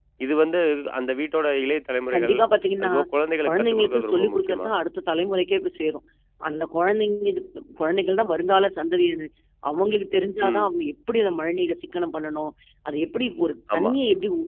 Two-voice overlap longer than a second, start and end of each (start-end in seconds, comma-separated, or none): 3.4-4.7